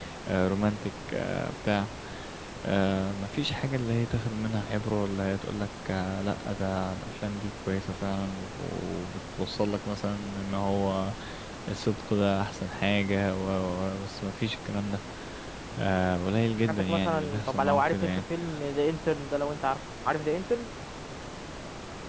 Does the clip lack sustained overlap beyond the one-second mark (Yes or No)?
No